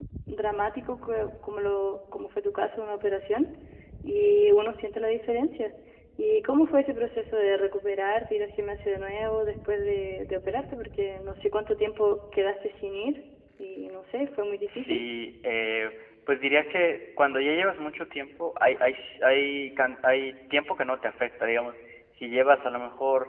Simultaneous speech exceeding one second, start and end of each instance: none

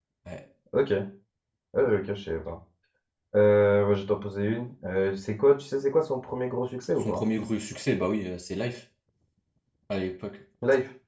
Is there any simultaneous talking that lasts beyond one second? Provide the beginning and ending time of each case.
none

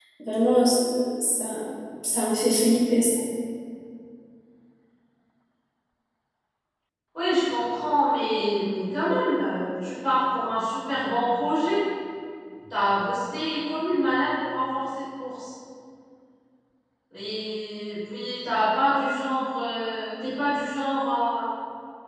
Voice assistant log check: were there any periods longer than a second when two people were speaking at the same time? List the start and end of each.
none

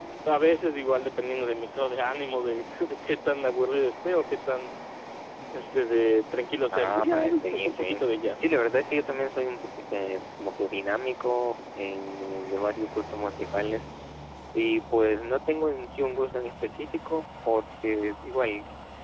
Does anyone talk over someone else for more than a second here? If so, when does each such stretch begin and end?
6.7-8.0

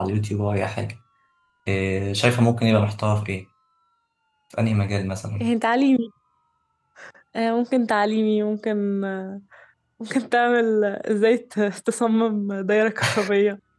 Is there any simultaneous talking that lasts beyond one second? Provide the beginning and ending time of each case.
none

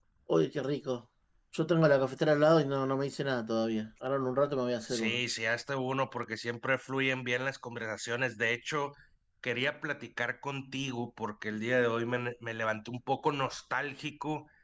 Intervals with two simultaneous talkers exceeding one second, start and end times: none

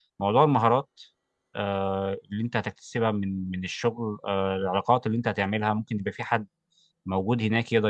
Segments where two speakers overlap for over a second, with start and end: none

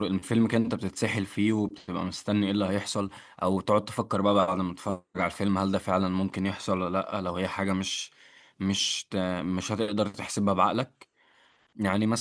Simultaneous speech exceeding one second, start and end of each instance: none

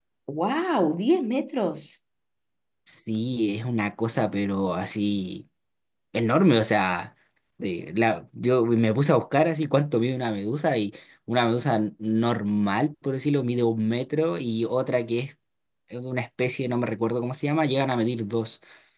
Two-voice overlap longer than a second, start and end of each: none

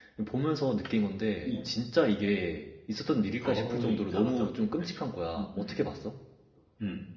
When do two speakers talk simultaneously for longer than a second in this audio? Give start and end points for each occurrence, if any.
3.4-4.9

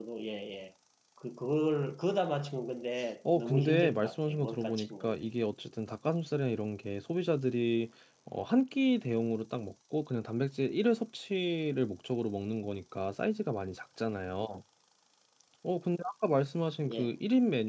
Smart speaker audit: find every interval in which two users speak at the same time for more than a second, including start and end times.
3.4-5.1

